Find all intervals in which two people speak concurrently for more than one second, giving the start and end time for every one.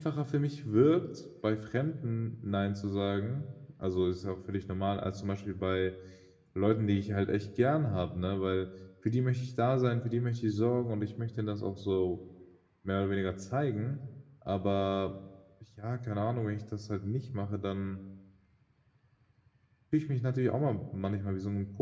none

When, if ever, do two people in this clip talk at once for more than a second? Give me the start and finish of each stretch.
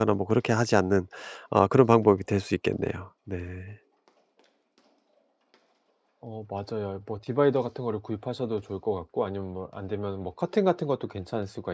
none

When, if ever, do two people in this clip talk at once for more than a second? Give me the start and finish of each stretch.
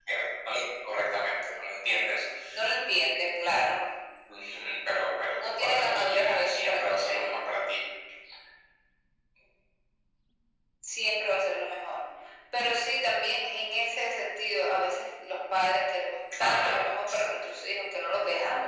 5.4-7.4

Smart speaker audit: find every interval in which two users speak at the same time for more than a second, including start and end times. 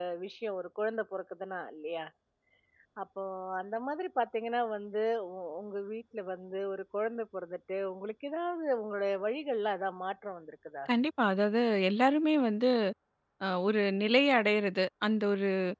none

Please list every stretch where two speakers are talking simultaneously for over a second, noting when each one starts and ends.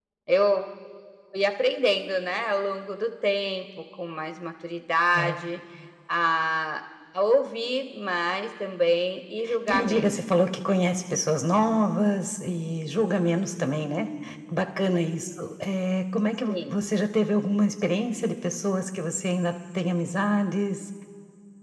none

